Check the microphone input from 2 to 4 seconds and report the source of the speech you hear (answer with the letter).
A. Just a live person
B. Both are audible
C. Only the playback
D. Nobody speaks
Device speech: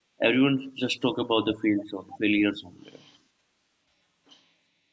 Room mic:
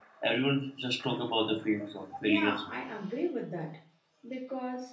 B